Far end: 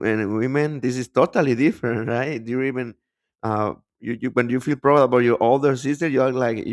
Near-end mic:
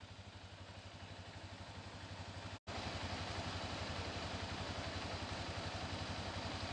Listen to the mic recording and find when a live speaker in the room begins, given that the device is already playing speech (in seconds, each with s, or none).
none